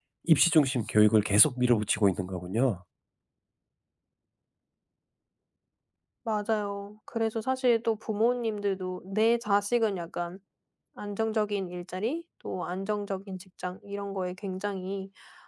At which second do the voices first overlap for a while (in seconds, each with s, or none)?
none